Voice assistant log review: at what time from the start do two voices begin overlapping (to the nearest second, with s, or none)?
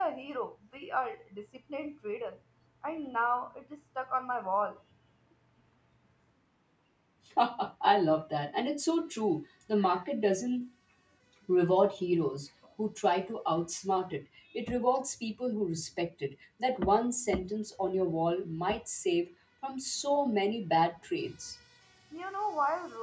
none